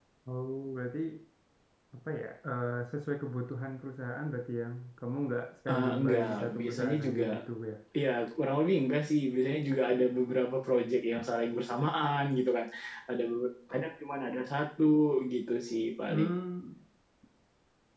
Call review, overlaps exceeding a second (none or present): present